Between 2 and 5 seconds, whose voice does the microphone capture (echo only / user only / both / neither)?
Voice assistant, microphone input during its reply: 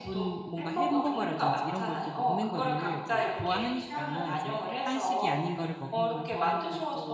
both